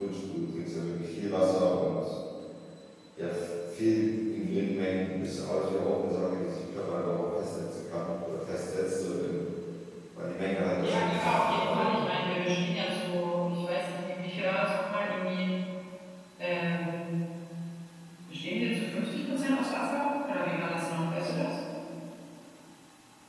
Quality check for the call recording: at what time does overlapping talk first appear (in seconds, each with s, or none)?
10.7 s